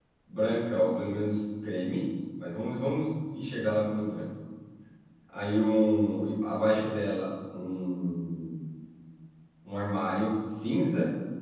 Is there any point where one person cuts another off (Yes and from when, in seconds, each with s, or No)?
No